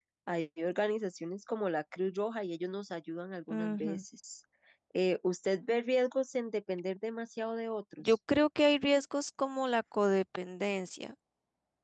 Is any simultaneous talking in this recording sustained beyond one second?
No

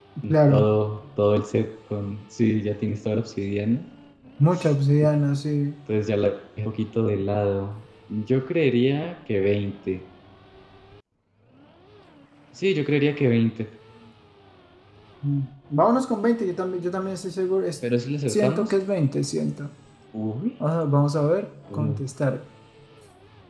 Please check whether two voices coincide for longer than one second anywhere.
No

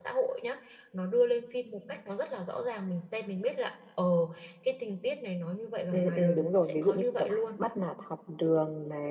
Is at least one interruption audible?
Yes, from 5.9 s

